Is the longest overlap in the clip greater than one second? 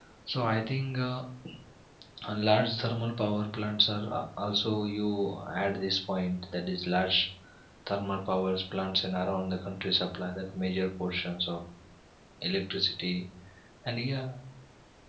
No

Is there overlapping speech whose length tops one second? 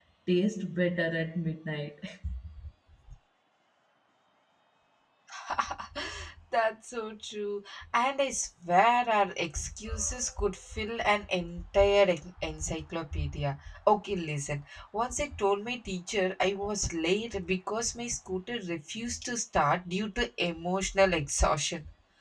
No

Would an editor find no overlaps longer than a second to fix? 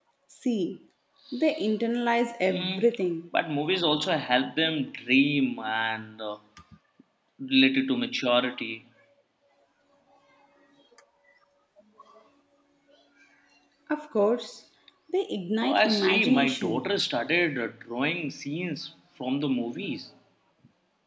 No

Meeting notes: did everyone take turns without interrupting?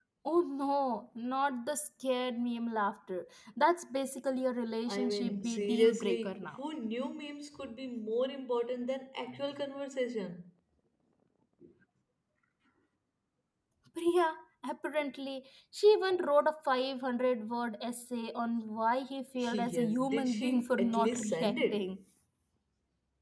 No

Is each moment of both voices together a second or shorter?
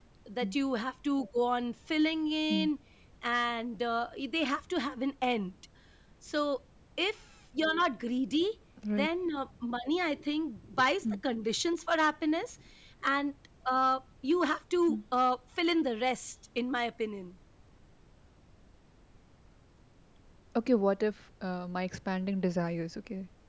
Yes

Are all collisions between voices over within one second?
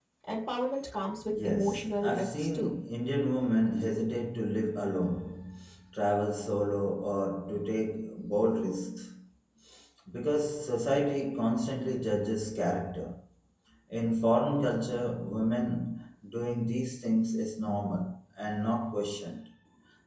No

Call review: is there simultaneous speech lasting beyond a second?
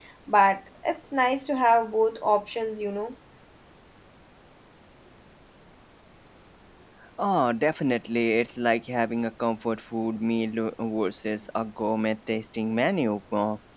No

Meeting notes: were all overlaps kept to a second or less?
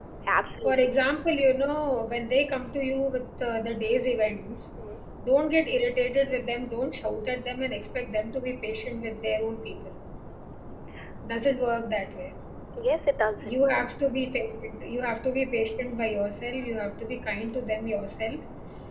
Yes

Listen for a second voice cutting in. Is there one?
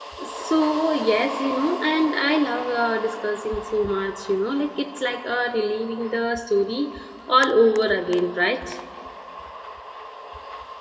No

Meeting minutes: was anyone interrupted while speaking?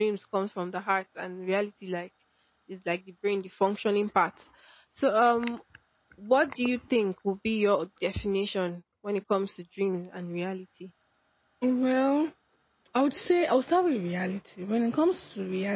No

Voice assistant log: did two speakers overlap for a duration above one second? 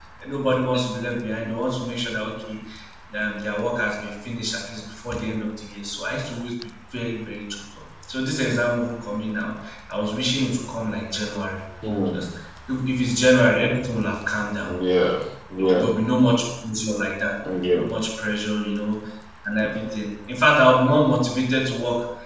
No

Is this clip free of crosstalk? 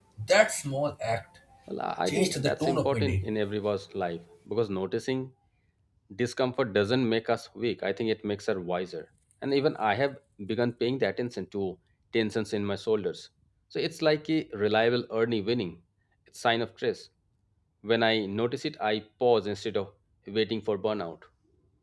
No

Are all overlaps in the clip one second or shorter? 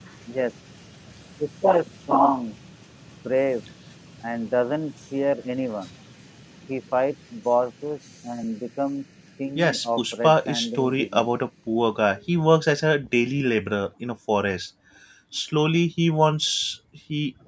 No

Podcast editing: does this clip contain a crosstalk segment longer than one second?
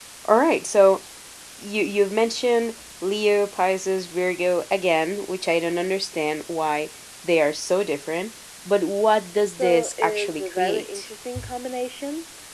Yes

